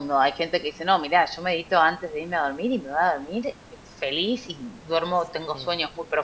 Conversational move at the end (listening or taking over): listening